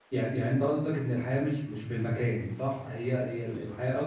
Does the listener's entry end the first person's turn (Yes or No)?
No